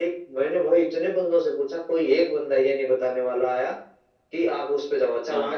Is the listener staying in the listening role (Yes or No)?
Yes